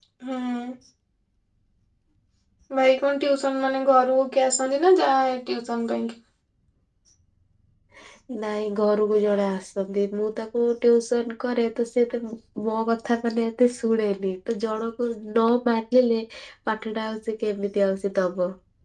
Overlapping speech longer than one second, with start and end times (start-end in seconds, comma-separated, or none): none